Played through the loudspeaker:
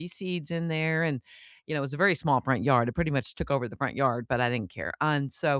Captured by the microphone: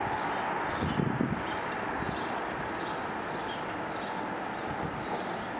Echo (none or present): none